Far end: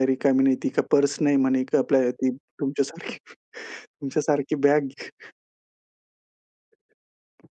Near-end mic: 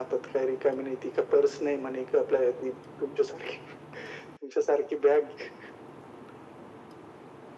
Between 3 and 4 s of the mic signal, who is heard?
echo only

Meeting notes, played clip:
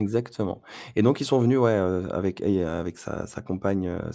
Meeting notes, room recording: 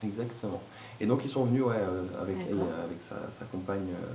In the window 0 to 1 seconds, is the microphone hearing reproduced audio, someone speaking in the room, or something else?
echo only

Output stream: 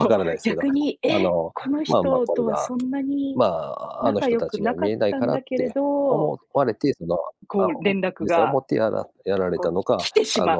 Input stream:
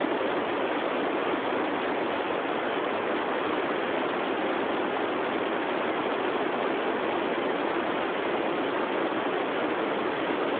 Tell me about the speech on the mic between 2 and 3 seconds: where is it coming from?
neither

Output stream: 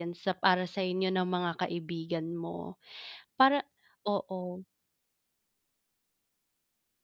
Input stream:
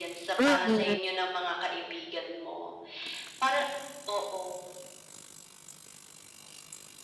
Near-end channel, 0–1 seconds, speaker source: both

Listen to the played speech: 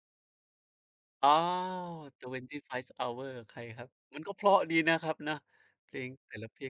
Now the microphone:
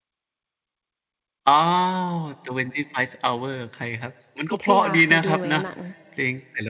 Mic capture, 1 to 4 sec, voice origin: echo only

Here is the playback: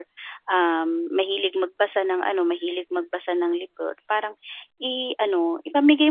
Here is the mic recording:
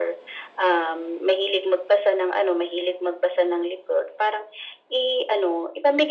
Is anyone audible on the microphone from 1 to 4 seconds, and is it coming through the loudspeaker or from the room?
echo only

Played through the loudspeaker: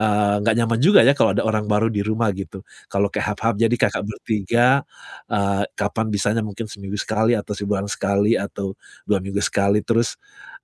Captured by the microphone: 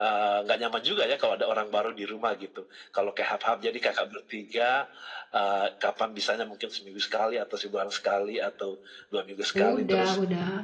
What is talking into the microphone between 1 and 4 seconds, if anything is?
echo only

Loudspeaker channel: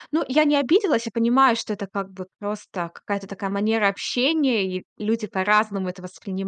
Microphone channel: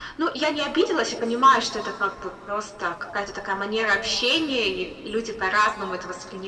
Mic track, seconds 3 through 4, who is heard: echo only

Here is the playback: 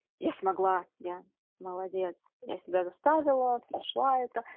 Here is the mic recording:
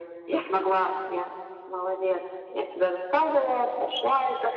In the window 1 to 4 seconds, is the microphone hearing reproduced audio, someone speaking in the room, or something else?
echo only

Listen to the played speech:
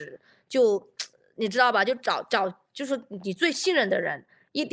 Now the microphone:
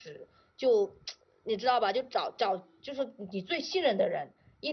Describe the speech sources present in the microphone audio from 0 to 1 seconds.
echo only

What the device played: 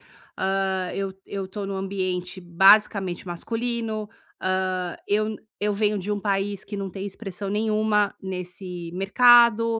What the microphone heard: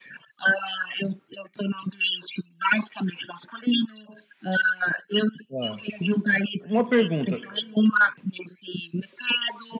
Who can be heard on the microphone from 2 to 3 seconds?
echo only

